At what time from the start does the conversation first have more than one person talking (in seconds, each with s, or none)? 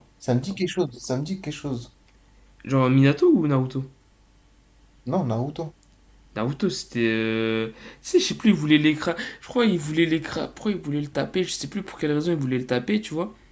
none